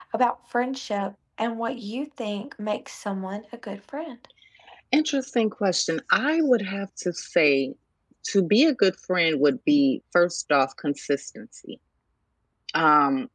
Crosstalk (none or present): none